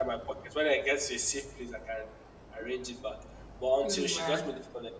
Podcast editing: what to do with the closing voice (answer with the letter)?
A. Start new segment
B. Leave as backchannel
B